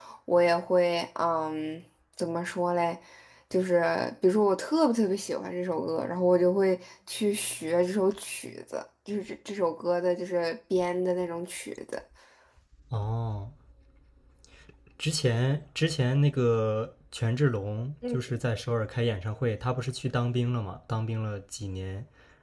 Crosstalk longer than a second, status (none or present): none